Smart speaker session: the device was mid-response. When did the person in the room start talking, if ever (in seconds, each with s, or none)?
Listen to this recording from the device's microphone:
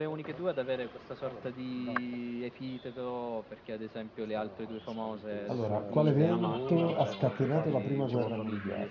5.5 s